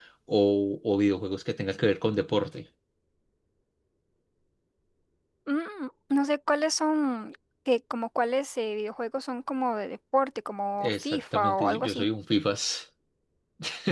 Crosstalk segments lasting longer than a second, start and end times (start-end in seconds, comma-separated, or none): 10.8-12.1